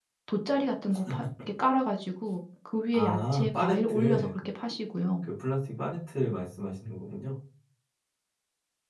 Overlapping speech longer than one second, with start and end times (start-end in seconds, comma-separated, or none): 2.9-4.3